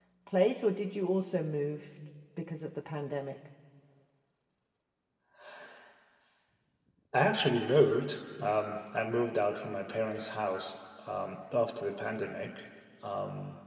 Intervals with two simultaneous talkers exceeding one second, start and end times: none

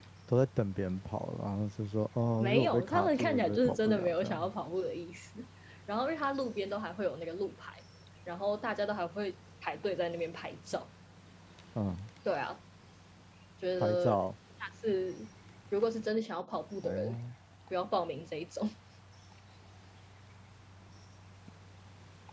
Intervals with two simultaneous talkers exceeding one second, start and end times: 2.4-4.5

